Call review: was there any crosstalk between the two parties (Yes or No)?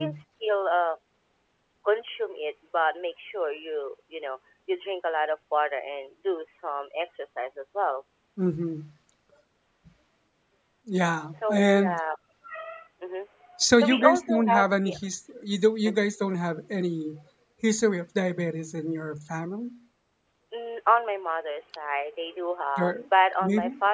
Yes